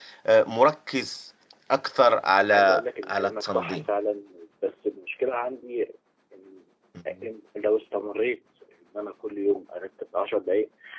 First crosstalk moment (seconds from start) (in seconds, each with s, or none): 2.5 s